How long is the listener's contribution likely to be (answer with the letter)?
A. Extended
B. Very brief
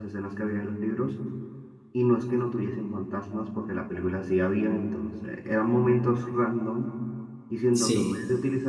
B